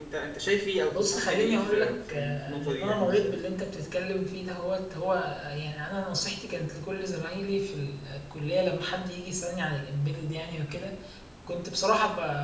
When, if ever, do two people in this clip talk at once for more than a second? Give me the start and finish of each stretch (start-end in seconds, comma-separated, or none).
0.9-3.3